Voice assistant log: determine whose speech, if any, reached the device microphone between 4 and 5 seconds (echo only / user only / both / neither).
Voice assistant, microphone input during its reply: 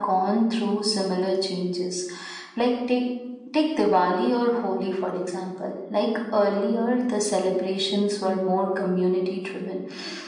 echo only